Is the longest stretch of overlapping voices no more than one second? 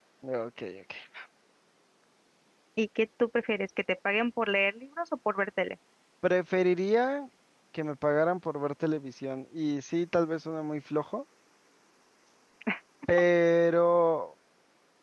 Yes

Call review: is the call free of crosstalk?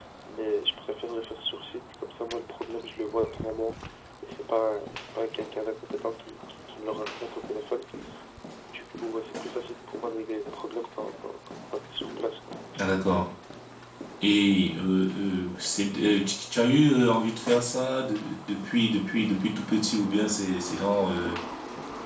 Yes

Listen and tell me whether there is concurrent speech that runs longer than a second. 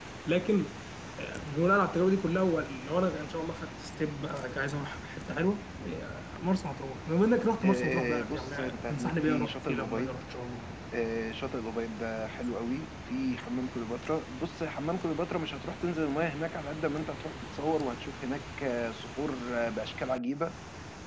Yes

